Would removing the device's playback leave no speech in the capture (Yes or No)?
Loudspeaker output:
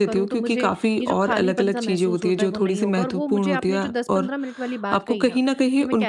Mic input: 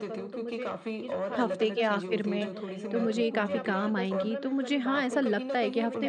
No